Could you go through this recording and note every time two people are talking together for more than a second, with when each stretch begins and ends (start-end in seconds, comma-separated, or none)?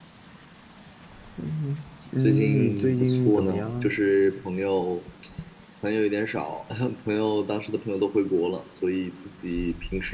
2.2-3.9